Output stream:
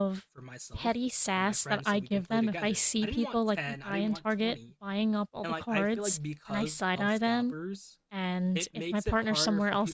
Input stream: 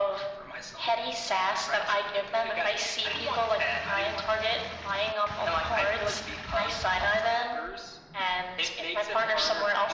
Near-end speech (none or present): none